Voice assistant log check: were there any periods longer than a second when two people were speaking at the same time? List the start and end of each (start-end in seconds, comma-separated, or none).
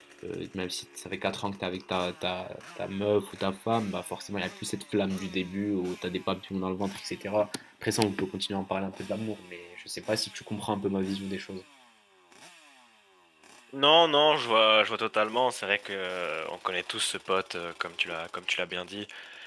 none